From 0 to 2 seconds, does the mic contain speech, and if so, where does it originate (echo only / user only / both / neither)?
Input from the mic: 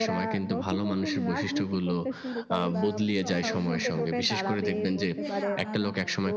echo only